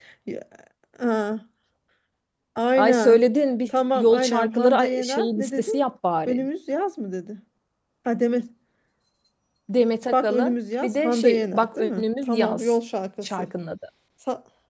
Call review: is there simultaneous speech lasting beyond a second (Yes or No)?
Yes